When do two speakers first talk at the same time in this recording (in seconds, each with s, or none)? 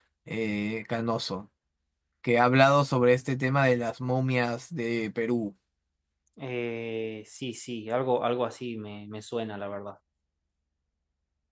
none